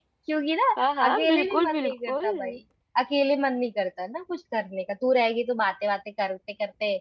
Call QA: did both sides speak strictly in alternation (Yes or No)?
No